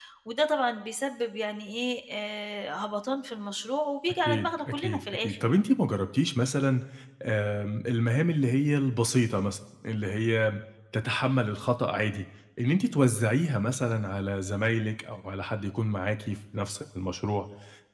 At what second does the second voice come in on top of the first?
4.2 s

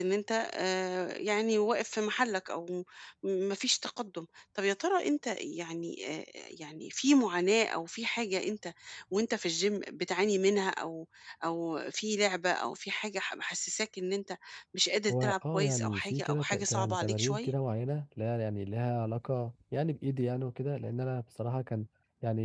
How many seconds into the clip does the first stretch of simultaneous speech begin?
15.1 s

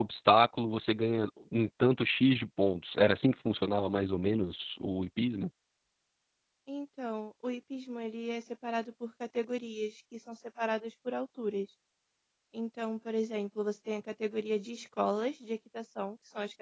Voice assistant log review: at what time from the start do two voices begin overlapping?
none

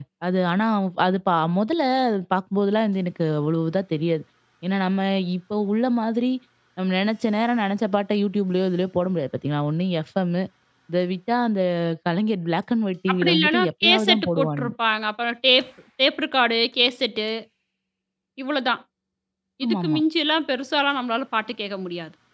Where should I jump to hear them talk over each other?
13.1 s

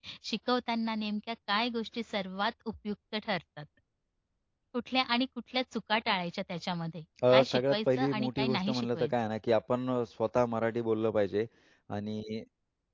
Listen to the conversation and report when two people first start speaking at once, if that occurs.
7.2 s

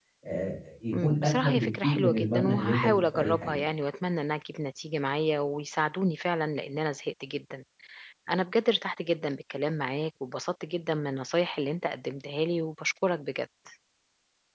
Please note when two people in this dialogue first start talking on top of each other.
1.0 s

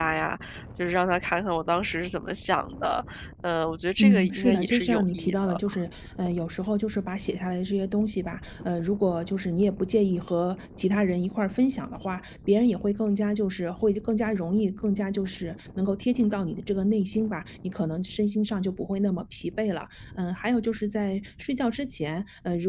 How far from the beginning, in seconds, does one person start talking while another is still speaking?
4.0 s

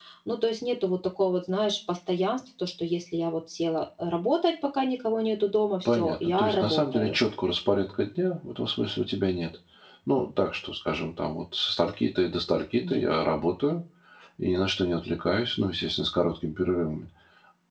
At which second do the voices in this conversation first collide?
5.8 s

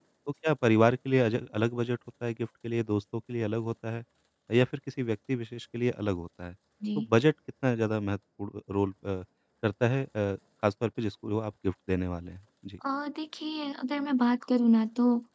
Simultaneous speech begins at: none

